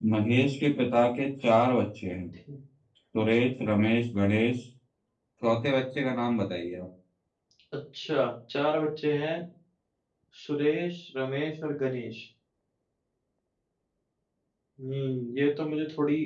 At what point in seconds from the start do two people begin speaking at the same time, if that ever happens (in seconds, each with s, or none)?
none